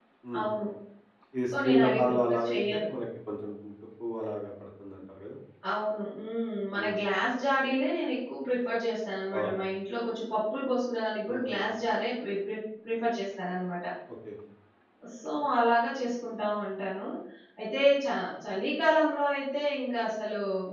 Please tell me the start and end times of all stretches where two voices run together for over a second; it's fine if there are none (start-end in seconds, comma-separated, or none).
1.6-2.9